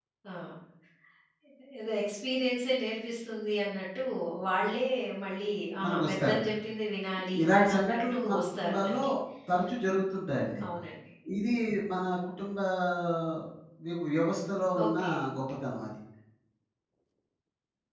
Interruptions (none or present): present